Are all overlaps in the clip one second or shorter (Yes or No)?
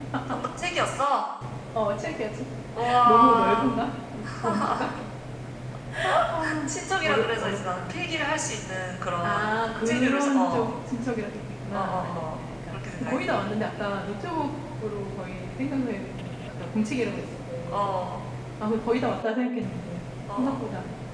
No